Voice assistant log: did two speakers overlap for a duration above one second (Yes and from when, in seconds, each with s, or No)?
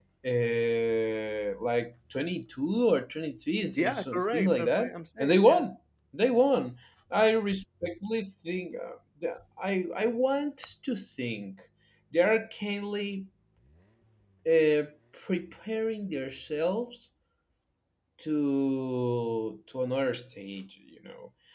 Yes, from 3.7 s